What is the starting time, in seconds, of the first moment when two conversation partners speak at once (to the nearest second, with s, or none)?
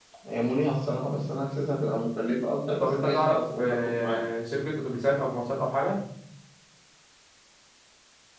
3 s